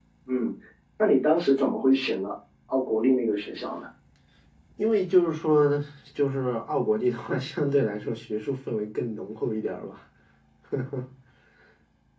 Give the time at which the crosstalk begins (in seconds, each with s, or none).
none